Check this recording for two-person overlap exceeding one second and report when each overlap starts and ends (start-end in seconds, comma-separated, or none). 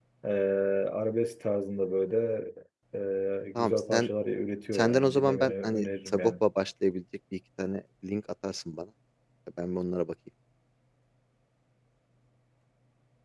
4.7-6.3